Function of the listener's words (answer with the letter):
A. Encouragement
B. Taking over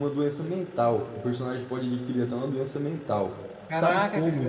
B